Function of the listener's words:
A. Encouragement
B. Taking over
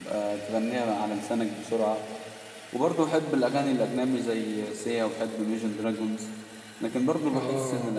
A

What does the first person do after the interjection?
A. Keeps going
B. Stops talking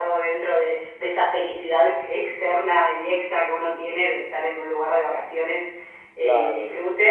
A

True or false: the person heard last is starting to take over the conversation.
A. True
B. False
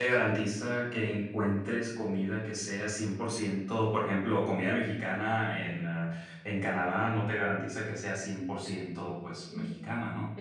A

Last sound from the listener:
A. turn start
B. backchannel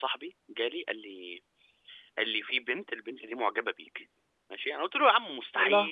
B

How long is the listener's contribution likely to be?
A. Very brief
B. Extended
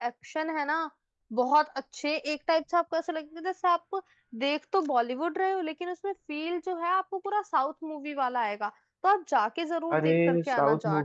B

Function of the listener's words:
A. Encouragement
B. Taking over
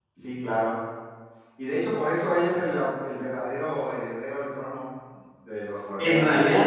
B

